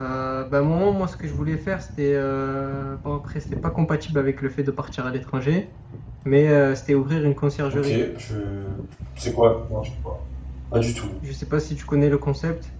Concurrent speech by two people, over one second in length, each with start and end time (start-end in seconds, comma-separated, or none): none